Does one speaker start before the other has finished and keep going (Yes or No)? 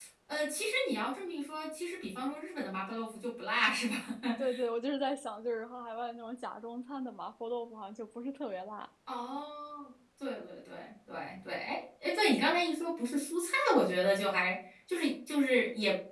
No